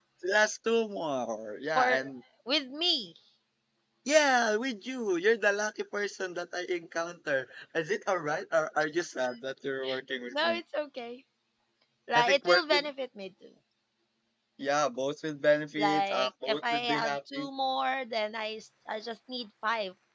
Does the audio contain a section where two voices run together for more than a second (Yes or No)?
Yes